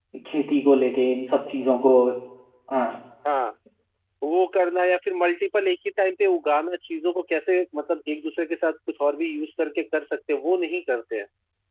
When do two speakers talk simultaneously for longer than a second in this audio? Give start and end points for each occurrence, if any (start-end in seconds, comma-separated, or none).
none